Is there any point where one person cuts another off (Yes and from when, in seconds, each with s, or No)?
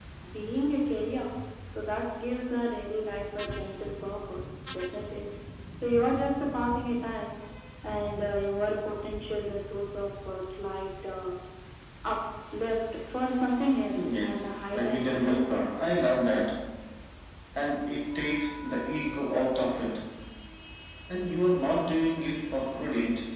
Yes, from 14.0 s